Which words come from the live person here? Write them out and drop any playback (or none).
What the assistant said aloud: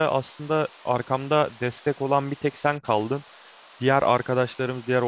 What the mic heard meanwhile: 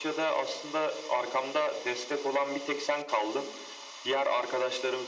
none